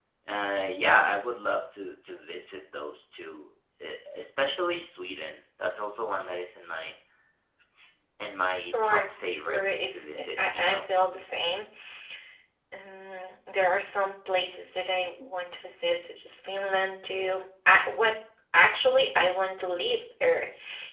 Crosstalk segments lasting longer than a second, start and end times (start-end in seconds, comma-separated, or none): 8.7-10.9